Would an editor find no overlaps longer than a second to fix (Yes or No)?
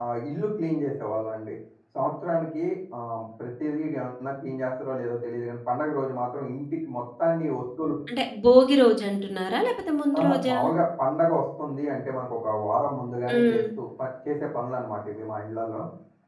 Yes